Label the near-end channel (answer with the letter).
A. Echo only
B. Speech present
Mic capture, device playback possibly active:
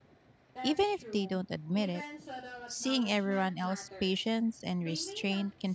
B